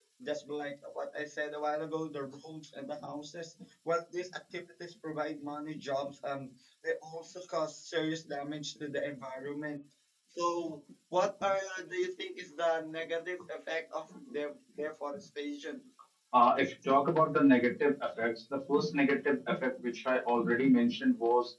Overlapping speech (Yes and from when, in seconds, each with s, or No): No